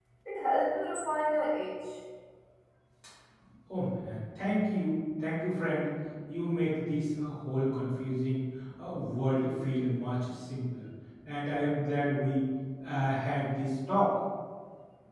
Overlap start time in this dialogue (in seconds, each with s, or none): none